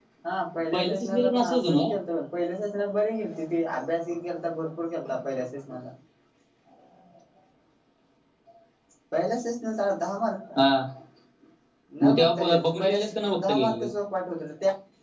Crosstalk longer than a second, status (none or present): present